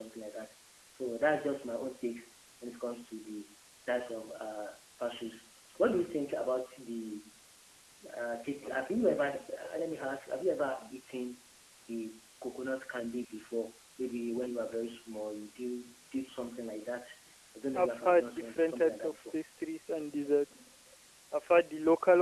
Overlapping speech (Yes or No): Yes